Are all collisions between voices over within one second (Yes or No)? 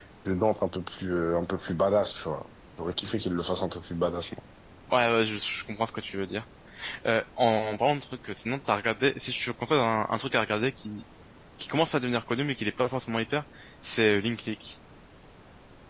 Yes